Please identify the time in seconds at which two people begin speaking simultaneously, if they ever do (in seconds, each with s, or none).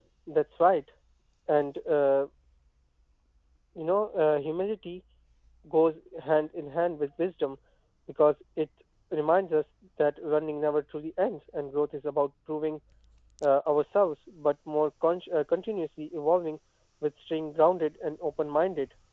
none